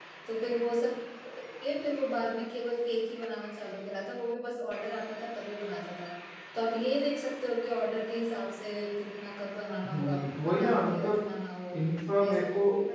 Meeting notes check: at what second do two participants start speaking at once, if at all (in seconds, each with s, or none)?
9.9 s